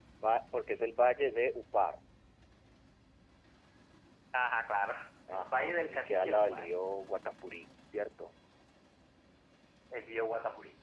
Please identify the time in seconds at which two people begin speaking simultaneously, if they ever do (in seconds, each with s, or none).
5.3 s